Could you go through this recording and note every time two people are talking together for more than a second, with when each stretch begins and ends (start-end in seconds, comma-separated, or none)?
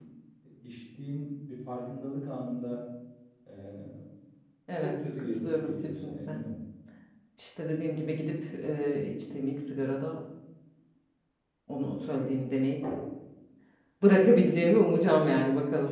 4.8-6.4